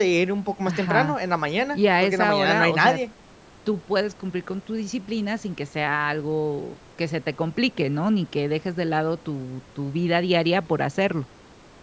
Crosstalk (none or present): present